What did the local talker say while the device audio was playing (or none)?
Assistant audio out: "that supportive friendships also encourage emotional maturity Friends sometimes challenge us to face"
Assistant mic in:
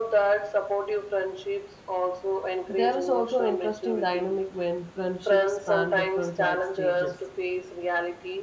There is also an interesting dynamic when friendships span different life stages.